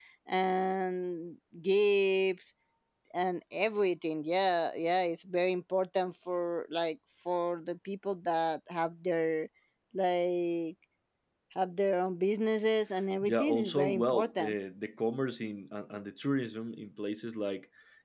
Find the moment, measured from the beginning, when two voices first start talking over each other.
13.2 s

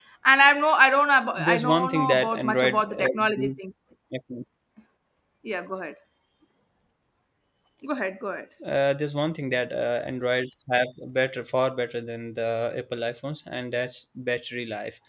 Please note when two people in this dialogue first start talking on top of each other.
1.3 s

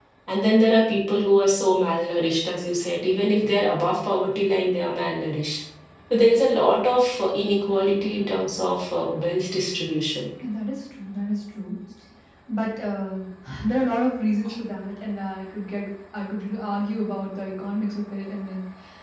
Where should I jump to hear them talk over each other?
none

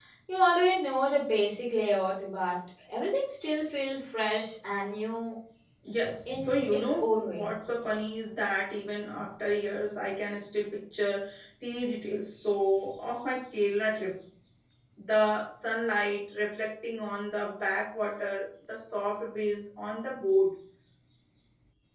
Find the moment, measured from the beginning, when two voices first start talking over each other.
6.2 s

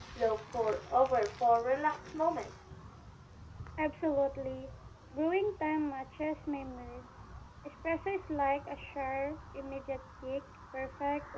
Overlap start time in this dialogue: none

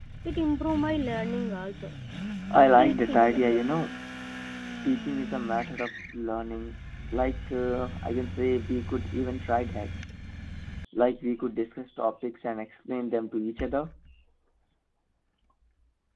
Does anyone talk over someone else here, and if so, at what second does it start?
2.5 s

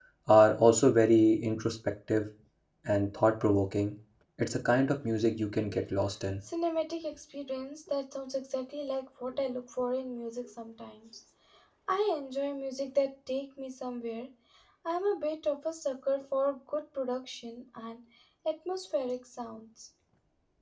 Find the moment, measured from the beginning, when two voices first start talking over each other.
none

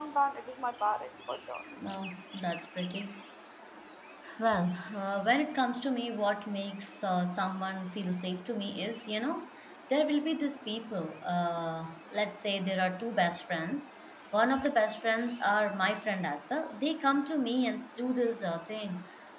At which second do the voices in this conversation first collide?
none

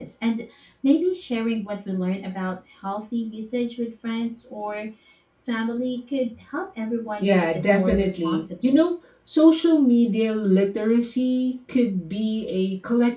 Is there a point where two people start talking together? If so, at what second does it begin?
7.2 s

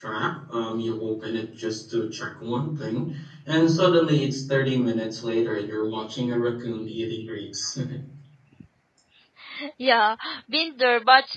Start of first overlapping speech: none

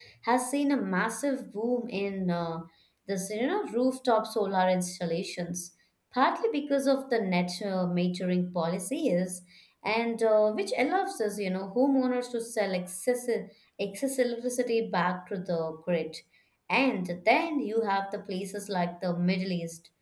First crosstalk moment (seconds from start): none

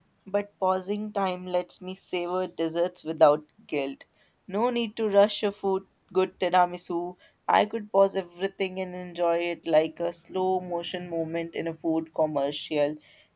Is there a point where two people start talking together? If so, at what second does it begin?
none

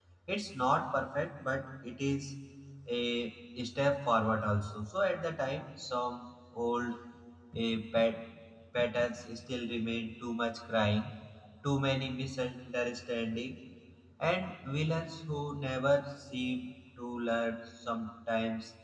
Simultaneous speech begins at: none

